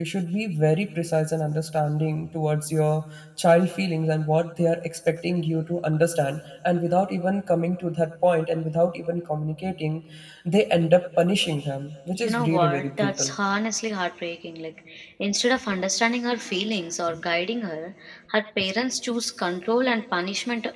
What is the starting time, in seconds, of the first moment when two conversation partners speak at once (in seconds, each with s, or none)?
12.1 s